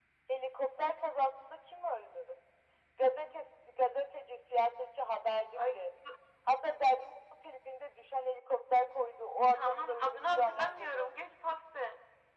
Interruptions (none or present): present